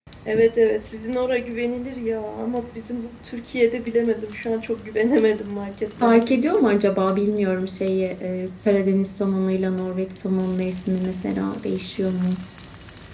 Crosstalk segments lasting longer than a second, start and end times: none

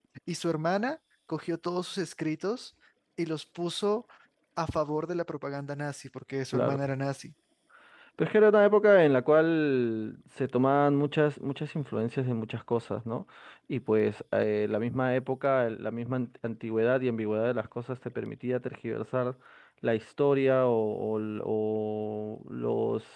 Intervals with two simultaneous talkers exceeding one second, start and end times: none

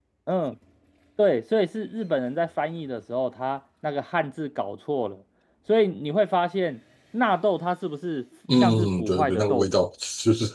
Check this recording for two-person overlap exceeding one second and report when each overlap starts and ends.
8.6-9.8

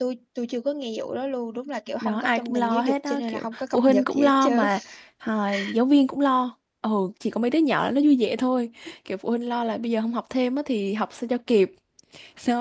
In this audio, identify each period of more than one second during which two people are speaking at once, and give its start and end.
2.0-4.7

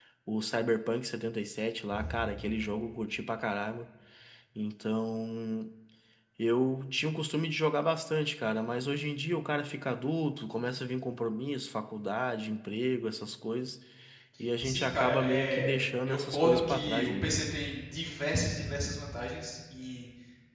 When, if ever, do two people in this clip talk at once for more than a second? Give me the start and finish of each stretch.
14.6-17.3

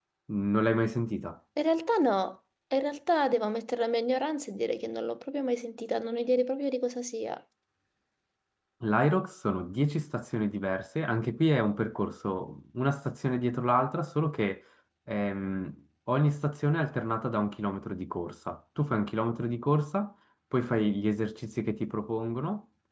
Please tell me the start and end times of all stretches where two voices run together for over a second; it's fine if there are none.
none

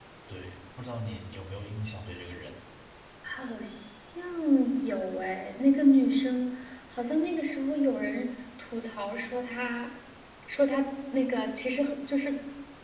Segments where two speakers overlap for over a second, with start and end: none

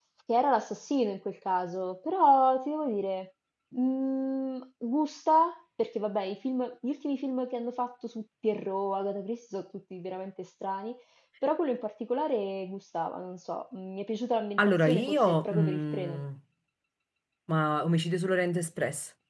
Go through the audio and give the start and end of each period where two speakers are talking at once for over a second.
14.6-16.2

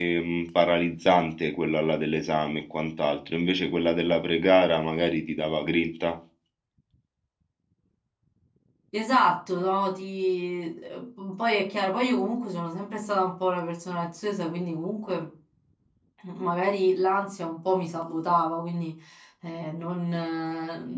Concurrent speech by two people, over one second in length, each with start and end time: none

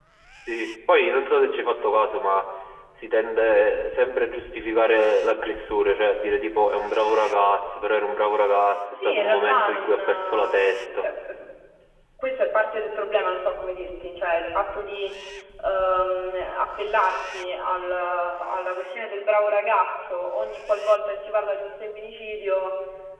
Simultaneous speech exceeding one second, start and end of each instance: 8.9-11.1

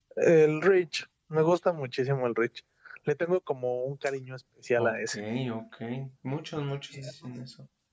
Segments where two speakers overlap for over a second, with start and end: none

